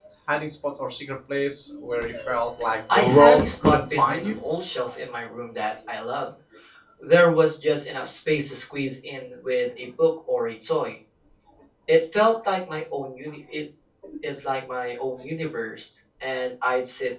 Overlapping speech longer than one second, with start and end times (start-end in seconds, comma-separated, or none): 2.9-4.3